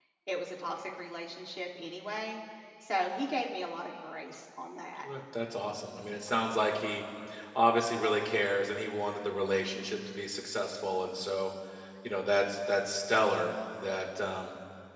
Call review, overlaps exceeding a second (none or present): none